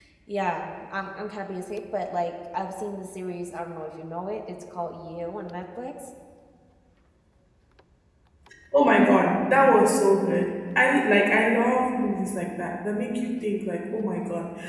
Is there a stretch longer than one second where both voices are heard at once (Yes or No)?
No